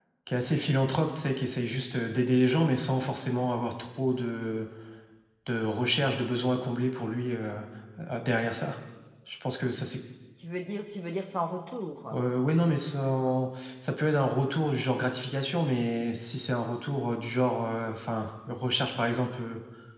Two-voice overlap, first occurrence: none

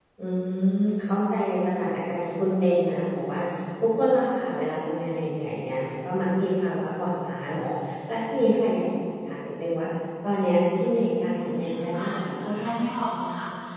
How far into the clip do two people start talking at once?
11.4 s

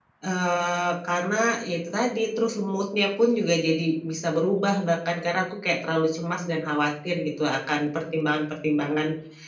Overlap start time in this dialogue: none

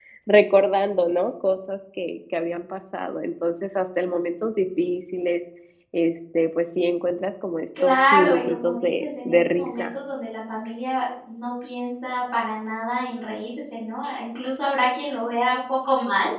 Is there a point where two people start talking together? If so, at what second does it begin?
7.8 s

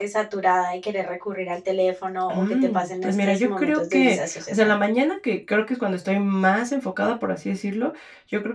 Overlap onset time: 2.3 s

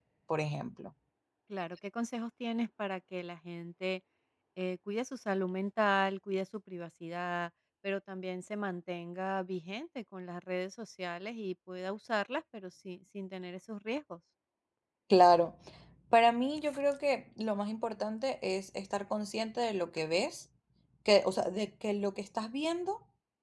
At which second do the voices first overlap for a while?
none

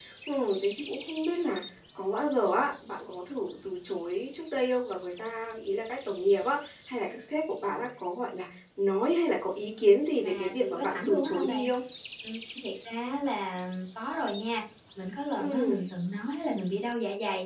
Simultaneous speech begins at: 10.2 s

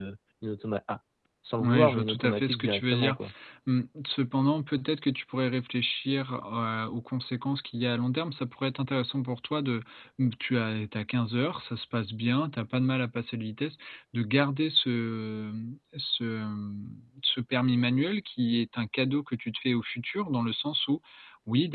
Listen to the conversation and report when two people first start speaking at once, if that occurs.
1.6 s

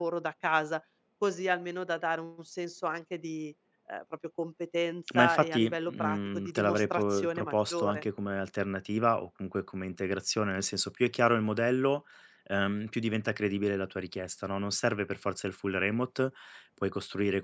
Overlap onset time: 5.1 s

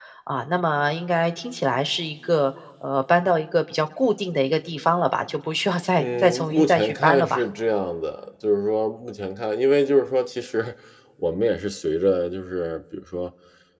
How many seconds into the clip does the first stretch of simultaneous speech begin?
6.0 s

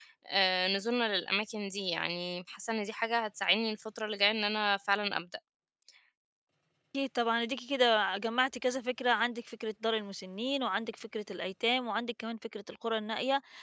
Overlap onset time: none

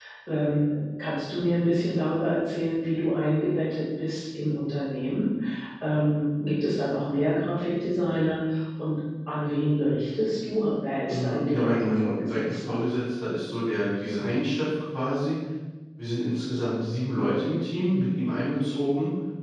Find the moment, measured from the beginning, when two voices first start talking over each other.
11.1 s

